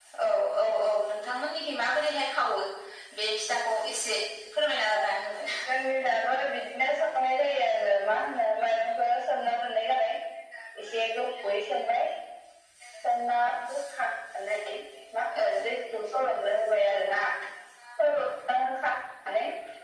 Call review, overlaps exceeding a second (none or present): none